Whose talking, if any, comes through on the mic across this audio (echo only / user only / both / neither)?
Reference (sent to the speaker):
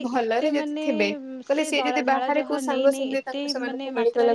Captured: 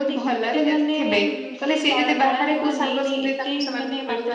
echo only